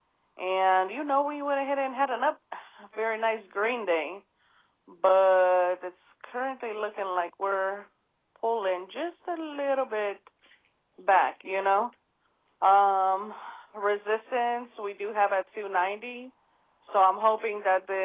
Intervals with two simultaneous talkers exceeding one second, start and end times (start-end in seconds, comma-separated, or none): none